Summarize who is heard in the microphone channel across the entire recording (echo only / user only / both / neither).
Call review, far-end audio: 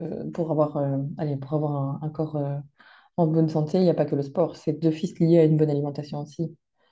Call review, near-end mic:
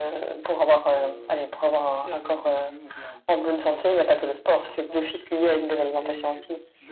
both